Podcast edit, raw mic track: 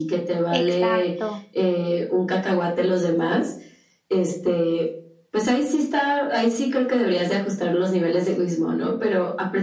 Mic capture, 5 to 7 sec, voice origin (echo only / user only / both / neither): echo only